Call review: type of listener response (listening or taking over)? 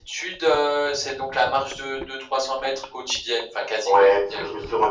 taking over